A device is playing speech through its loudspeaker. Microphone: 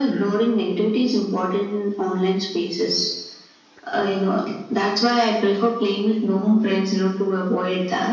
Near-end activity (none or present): none